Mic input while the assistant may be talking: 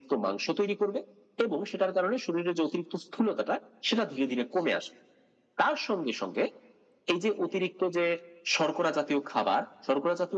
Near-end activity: none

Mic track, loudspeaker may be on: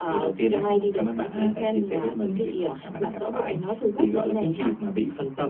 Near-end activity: none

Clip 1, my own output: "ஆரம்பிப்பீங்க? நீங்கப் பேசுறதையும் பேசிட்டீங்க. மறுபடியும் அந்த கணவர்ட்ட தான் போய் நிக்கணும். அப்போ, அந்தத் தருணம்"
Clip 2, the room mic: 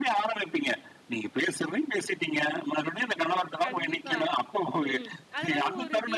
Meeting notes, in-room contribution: present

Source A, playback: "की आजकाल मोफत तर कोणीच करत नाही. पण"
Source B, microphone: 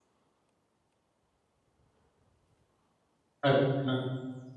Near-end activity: present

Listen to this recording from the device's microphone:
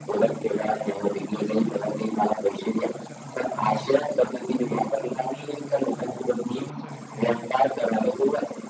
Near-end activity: present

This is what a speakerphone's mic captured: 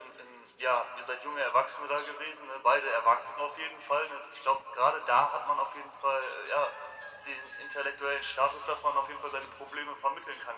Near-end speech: none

